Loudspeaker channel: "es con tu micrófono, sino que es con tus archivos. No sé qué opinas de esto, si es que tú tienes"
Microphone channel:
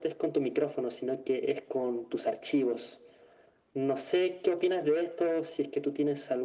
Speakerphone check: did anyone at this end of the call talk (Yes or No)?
No